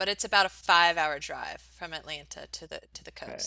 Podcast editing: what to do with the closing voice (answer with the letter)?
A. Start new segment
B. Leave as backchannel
A